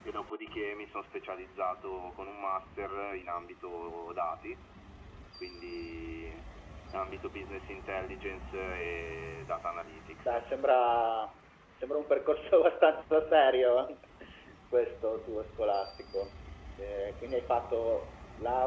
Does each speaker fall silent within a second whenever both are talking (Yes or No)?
Yes